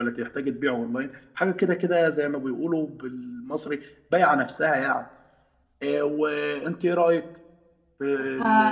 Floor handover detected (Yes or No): Yes